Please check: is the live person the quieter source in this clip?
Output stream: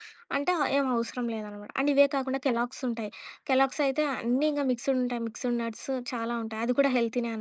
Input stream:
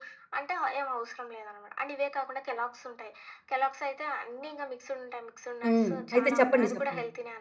No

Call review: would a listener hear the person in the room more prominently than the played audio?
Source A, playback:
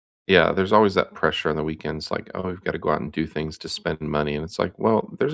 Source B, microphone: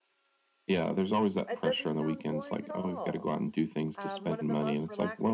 No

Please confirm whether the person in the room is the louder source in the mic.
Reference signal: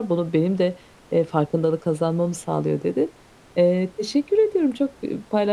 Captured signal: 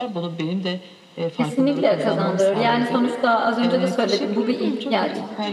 Yes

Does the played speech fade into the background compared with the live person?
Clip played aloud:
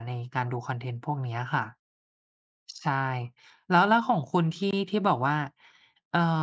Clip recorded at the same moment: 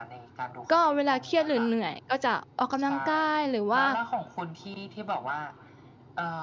Yes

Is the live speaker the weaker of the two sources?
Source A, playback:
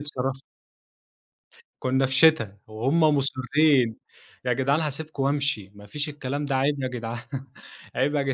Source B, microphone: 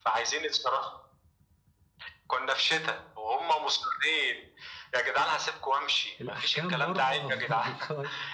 Yes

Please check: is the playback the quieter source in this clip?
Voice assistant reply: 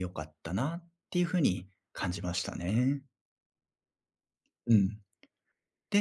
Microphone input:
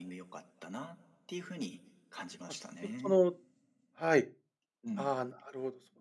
Yes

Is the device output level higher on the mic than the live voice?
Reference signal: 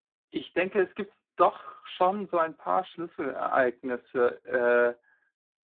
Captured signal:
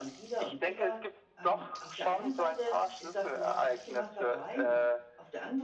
Yes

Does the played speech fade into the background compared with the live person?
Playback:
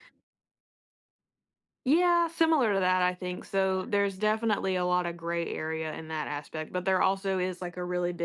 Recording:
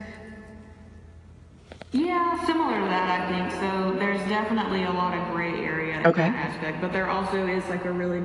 Yes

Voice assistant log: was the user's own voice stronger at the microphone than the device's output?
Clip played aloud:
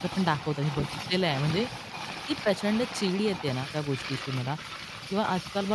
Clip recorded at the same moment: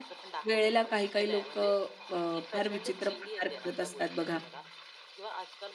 Yes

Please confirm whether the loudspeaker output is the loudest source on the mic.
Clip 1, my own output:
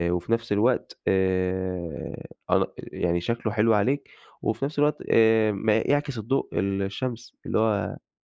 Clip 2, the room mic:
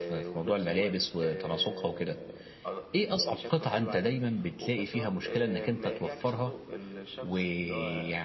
No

